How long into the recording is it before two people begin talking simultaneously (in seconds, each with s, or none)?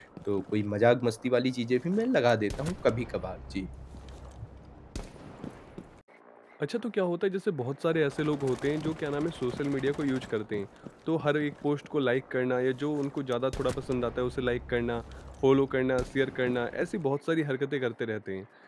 none